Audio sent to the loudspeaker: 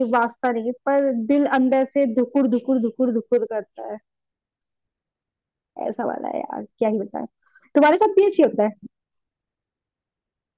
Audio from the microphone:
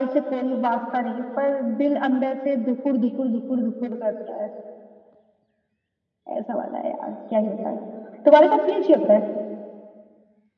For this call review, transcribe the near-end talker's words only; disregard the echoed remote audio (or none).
none